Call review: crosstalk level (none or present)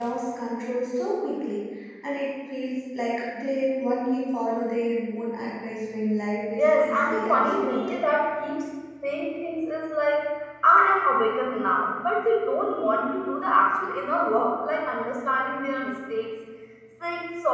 present